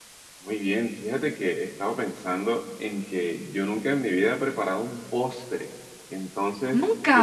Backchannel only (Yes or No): Yes